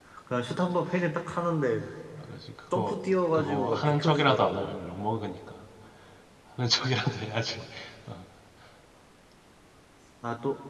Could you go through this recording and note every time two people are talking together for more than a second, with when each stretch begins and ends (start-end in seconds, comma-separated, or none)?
3.3-4.8